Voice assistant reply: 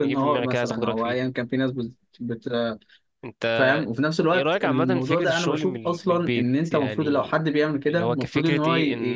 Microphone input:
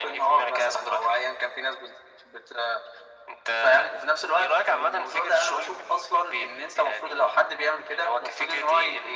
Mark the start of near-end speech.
none

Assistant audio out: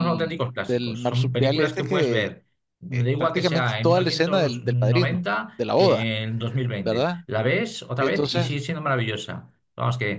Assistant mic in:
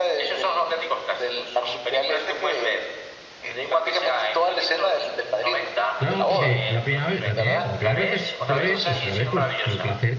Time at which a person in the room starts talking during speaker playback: 6.0 s

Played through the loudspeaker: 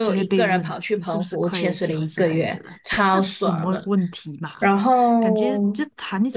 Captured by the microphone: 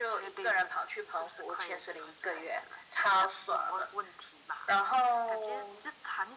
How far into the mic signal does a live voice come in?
none

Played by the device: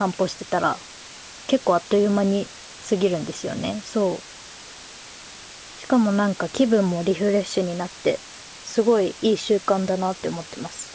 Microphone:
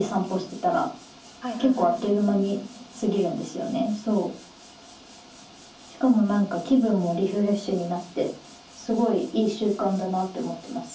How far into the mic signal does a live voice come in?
1.4 s

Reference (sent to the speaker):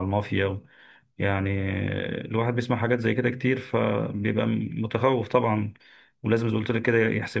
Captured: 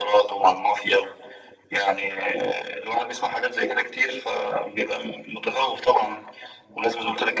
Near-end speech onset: none

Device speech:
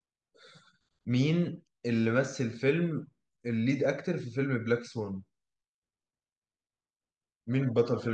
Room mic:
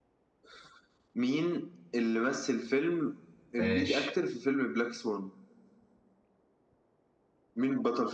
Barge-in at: 3.6 s

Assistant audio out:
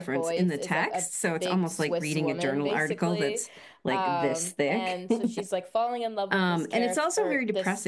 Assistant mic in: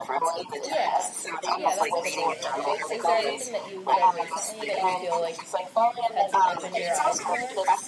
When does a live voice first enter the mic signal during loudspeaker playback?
0.6 s

